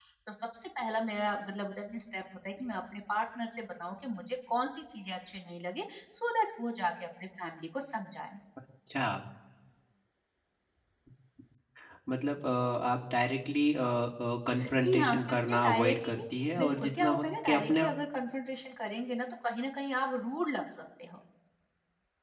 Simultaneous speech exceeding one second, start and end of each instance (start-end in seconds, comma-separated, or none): 14.8-16.2, 16.6-17.8